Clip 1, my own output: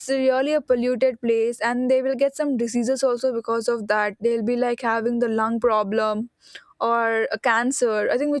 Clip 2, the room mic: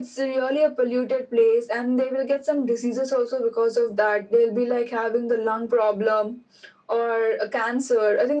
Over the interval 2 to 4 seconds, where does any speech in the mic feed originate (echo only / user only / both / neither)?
echo only